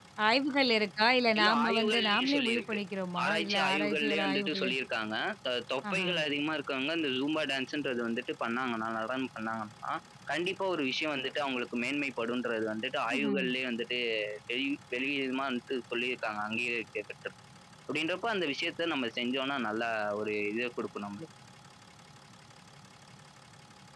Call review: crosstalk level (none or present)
present